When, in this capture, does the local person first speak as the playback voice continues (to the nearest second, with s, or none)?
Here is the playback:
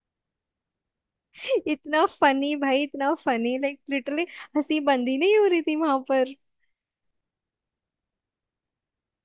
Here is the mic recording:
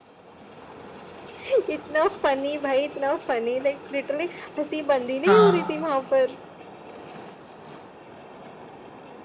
5 s